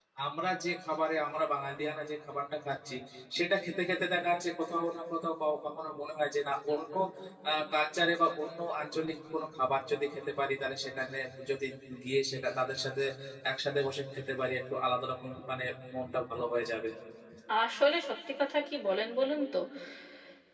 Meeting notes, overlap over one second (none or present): none